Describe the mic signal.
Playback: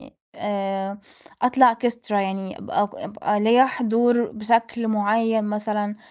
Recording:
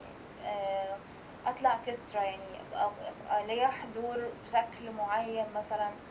echo only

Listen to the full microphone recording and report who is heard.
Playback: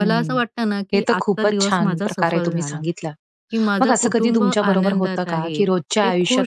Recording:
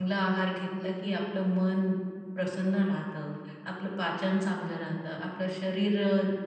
user only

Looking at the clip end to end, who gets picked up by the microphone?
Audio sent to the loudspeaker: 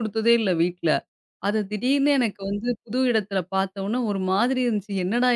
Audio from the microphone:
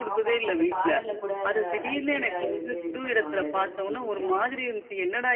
both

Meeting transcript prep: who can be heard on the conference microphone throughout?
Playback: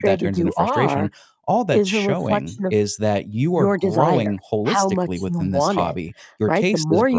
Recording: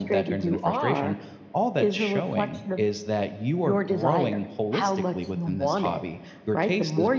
echo only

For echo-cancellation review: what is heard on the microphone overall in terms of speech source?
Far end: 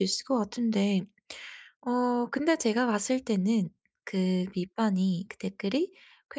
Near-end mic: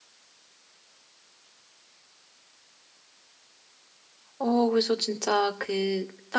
user only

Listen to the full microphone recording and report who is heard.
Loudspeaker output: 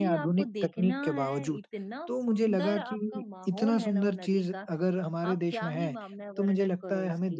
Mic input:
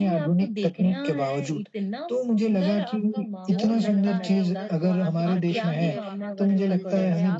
both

